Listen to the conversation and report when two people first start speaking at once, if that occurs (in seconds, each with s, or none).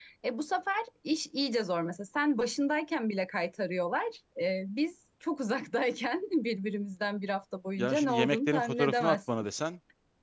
7.8 s